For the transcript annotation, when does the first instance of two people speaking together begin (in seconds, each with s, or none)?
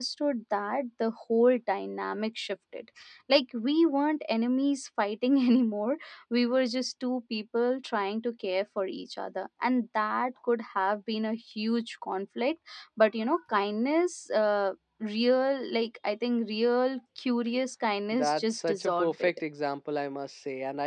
18.1 s